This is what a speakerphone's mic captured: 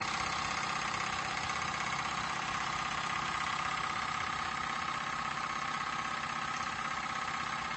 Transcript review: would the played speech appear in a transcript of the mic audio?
No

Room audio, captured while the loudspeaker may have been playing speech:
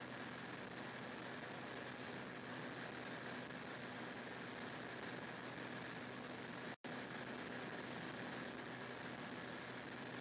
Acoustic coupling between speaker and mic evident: No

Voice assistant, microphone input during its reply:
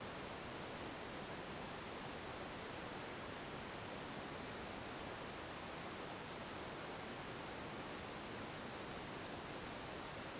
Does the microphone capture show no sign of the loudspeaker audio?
Yes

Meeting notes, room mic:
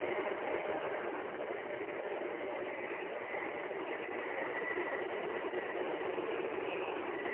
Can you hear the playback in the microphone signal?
No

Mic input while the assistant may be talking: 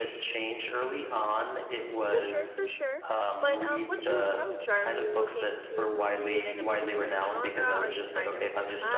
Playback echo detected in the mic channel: Yes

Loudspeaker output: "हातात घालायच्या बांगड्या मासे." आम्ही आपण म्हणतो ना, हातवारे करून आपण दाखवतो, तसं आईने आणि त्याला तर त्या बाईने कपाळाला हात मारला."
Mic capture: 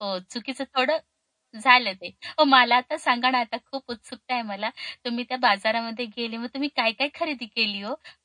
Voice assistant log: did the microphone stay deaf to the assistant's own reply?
Yes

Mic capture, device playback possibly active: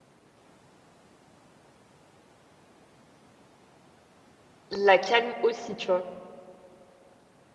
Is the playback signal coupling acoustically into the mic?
No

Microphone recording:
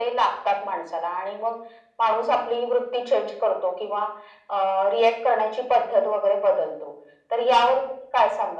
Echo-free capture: No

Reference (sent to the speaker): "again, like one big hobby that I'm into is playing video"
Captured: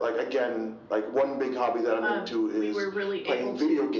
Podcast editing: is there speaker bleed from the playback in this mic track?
Yes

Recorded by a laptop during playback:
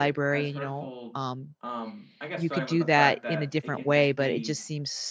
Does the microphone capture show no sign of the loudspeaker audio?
No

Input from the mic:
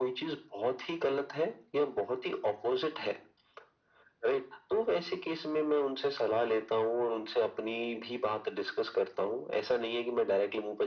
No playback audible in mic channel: No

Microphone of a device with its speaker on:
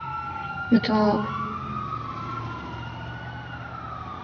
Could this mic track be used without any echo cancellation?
Yes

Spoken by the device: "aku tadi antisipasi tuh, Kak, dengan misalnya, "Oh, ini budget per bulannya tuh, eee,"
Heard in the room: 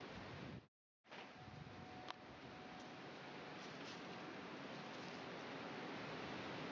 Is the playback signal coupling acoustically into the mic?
No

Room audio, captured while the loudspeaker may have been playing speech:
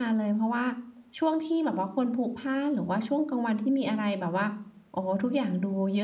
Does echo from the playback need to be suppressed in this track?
No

